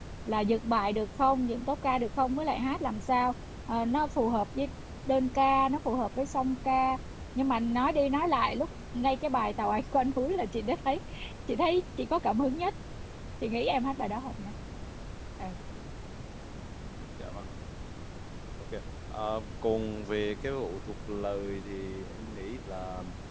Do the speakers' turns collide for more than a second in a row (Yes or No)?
No